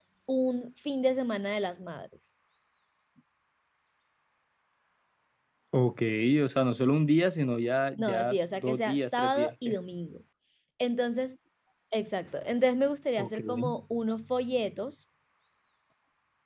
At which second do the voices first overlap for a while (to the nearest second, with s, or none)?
8 s